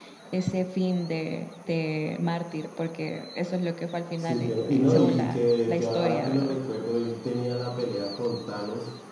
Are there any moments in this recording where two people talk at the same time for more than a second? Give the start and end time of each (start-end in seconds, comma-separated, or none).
4.2-6.6